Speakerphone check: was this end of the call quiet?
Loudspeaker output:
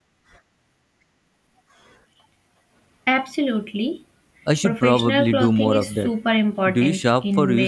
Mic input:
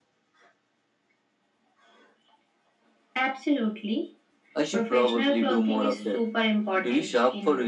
Yes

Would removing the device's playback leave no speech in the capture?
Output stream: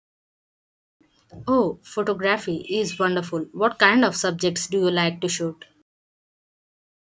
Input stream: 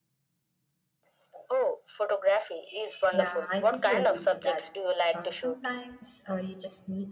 No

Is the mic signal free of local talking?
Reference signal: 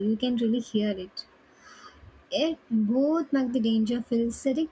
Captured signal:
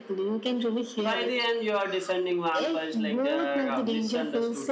No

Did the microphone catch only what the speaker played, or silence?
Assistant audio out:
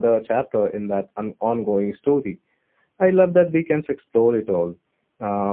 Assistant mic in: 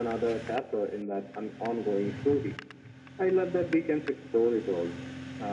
Yes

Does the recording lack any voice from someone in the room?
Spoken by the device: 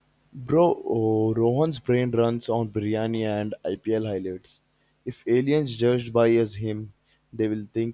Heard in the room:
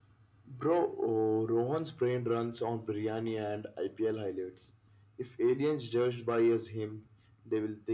Yes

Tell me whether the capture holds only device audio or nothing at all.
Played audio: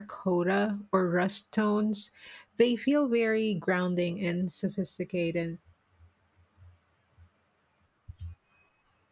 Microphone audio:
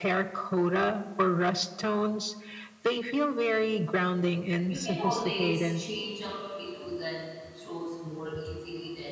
No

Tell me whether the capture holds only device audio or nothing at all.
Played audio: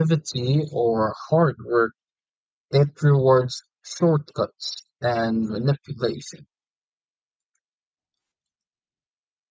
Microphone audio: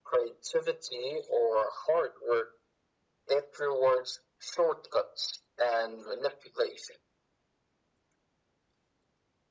Yes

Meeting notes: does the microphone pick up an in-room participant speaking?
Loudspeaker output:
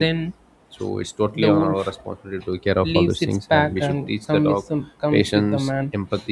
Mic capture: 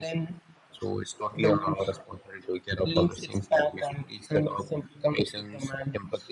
No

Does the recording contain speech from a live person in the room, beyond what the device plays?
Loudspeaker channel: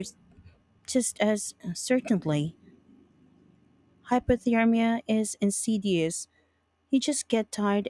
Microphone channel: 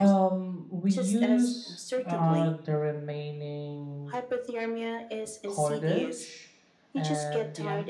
Yes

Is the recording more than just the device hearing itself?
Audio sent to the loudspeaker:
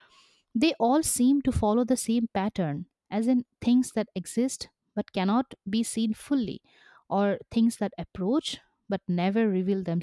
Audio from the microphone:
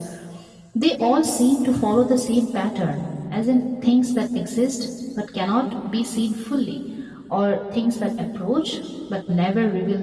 No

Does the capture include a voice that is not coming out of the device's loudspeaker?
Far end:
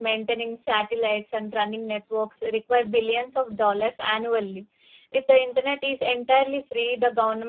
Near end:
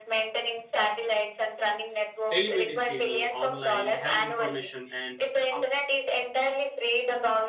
Yes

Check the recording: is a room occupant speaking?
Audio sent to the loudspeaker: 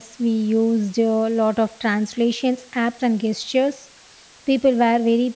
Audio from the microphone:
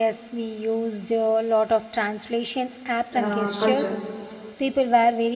Yes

